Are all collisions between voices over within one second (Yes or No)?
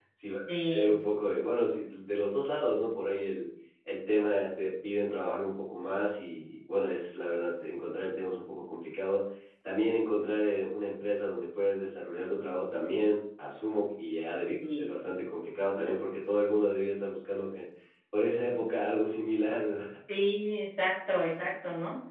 Yes